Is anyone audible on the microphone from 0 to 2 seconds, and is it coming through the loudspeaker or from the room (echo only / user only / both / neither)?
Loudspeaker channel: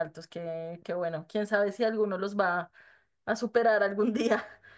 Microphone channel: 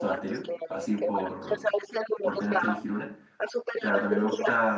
both